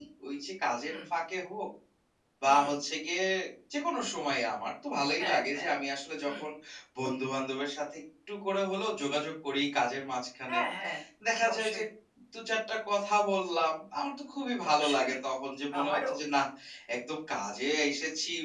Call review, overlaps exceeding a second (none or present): none